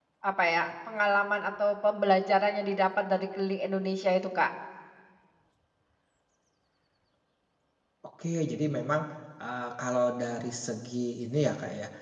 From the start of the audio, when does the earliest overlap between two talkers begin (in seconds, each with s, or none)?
none